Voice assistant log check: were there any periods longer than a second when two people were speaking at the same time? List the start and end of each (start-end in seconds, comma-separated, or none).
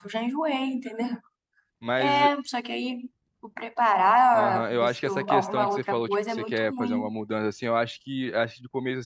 4.3-7.1